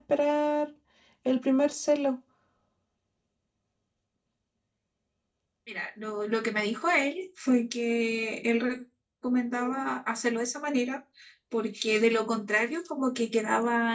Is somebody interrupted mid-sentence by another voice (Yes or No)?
No